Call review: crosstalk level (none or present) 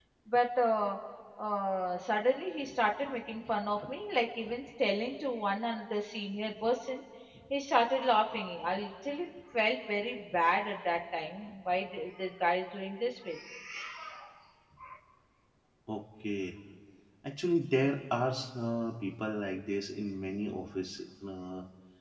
none